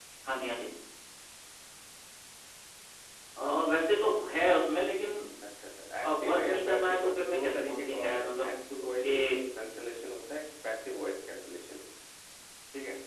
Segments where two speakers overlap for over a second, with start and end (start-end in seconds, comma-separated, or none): 6.0-9.1